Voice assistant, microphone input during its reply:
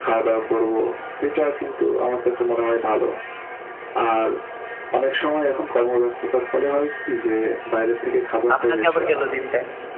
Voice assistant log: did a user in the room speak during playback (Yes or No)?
Yes